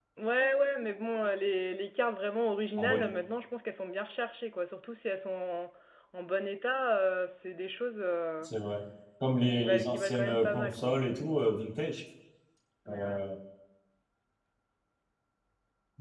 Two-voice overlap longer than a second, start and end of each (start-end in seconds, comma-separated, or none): 9.6-11.0